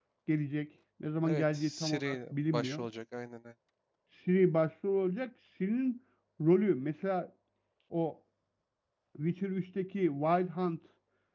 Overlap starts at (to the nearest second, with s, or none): 1 s